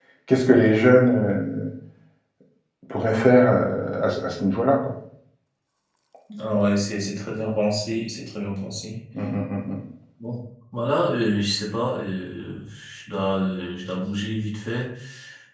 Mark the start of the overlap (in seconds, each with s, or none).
none